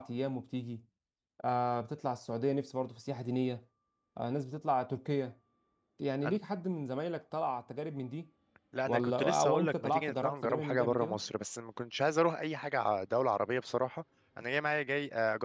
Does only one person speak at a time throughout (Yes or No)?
No